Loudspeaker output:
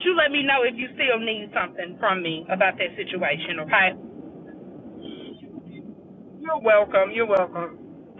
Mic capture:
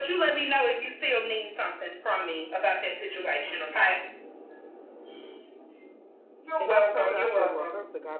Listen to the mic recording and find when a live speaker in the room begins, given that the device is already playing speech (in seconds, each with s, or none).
6.6 s